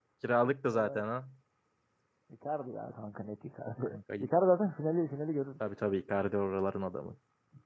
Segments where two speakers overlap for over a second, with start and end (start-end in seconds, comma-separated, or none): none